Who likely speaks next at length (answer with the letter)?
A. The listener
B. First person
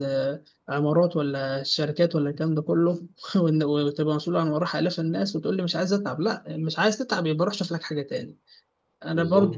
B